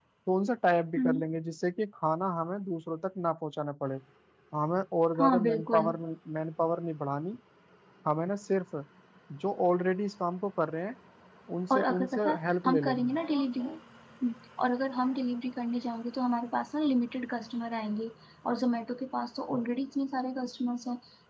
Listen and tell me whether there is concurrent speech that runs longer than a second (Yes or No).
Yes